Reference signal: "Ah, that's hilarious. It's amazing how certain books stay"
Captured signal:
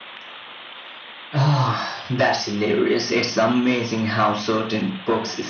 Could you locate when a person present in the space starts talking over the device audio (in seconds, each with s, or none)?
none